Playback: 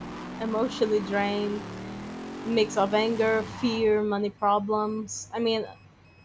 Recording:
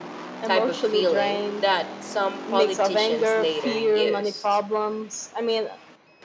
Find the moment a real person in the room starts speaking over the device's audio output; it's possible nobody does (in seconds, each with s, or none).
0.4 s